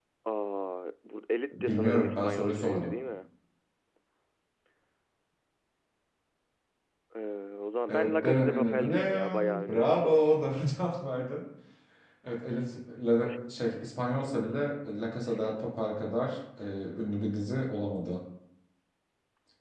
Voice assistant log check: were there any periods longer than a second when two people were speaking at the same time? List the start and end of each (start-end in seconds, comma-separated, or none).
1.5-2.9, 7.9-10.2